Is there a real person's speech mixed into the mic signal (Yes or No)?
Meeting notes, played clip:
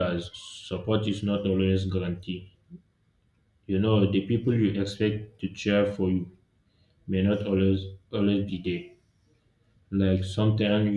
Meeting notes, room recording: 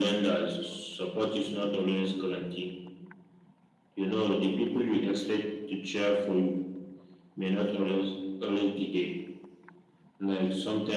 No